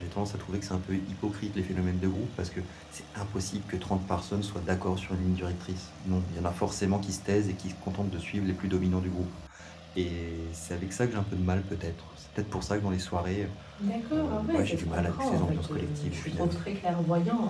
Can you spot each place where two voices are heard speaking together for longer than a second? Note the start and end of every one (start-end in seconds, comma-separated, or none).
14.1-16.6